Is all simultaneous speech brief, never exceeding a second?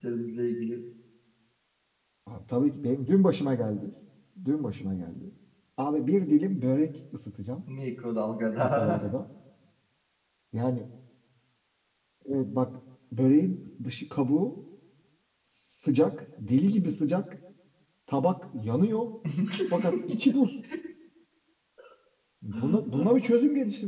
Yes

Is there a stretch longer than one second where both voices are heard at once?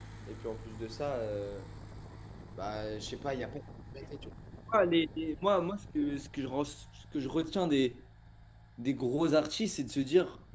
No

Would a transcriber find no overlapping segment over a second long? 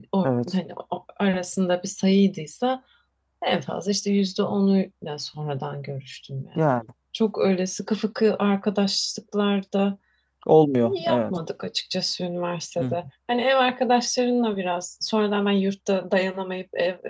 Yes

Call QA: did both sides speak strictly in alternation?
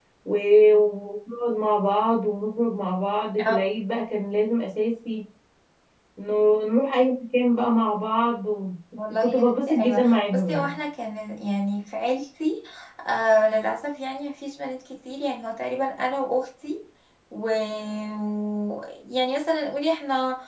No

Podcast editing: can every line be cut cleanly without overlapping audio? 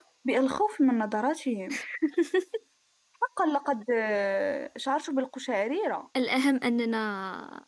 Yes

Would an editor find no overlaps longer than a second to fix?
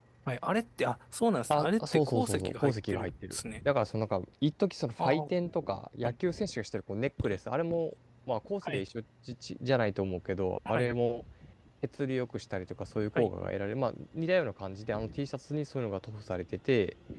No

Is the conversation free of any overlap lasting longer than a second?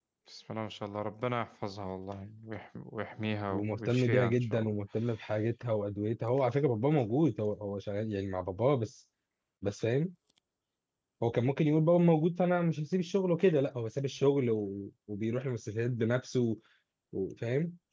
No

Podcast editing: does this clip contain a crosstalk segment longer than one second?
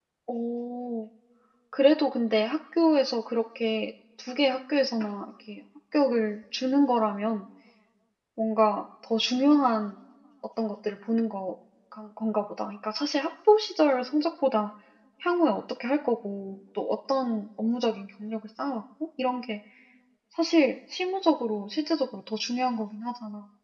No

